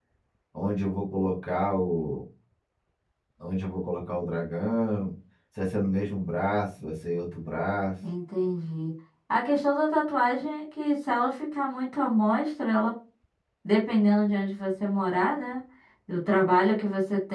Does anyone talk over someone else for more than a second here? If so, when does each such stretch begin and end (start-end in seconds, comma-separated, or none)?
none